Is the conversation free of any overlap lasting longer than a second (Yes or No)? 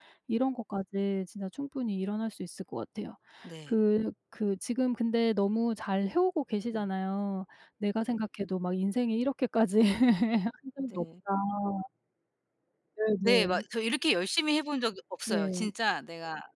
Yes